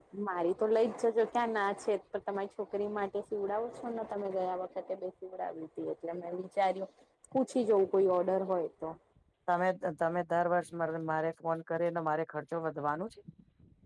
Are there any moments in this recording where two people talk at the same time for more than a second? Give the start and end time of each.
none

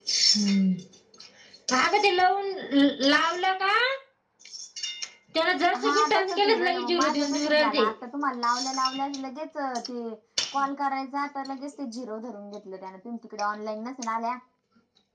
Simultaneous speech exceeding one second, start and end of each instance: 5.8-7.8

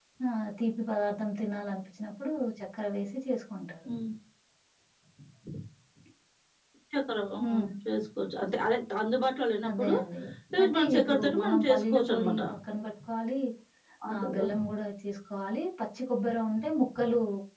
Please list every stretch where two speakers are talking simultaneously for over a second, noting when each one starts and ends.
10.6-12.3

